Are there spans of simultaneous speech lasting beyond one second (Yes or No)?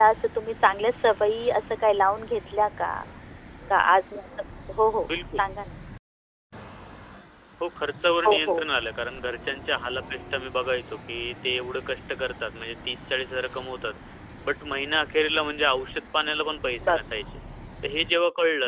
No